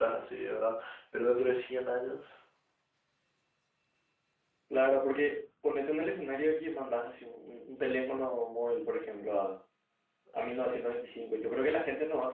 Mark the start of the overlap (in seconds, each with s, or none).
none